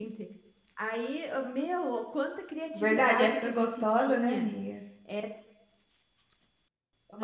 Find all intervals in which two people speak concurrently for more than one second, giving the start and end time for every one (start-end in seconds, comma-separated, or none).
2.7-4.5